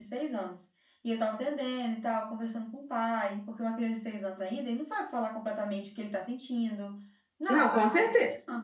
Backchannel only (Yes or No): No